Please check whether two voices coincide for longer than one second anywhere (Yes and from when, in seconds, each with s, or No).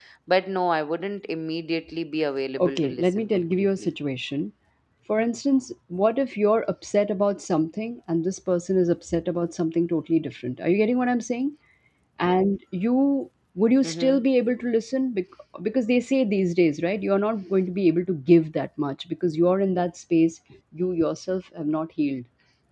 Yes, from 2.6 s